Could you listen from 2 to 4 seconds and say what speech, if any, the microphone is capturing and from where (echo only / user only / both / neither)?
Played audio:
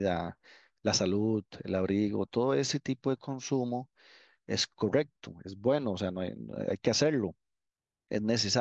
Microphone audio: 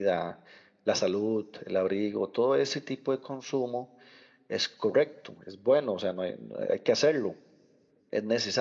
echo only